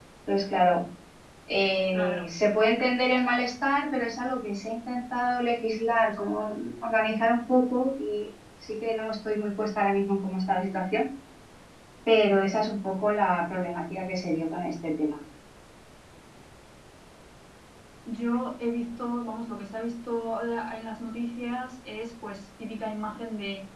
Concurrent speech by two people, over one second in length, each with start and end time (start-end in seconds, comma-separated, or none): none